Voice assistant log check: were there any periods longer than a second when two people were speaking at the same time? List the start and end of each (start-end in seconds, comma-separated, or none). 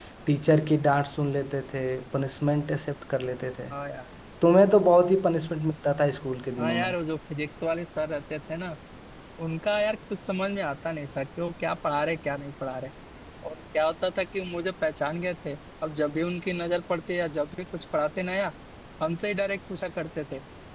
none